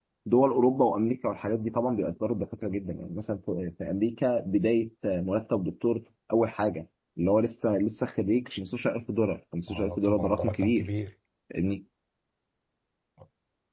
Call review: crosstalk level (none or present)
present